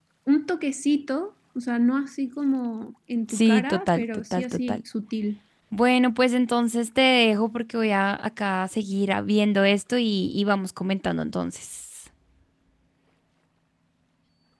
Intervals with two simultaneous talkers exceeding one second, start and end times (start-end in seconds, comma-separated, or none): 3.3-4.8